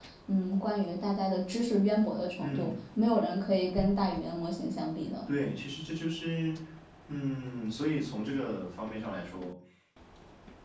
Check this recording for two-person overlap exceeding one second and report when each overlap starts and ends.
none

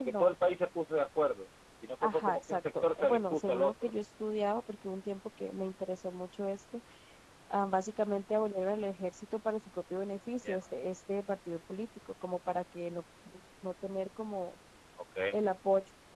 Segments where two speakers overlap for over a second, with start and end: 2.0-3.9

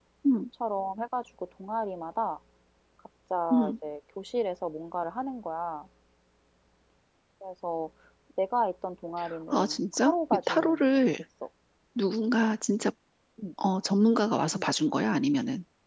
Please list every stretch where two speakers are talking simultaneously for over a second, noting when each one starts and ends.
9.5-11.0

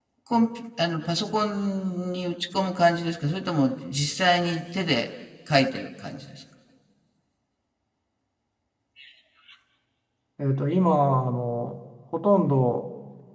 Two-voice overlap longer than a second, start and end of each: none

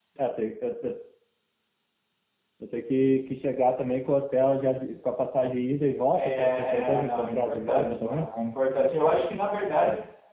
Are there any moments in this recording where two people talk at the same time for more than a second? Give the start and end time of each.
6.1-8.3

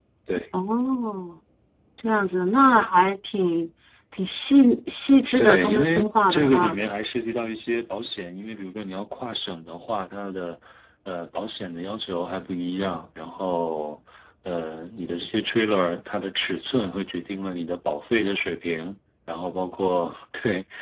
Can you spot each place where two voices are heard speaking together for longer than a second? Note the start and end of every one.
5.4-6.8

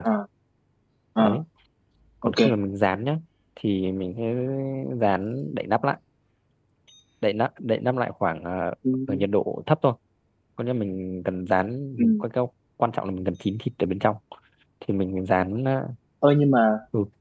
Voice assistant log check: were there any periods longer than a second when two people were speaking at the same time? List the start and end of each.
none

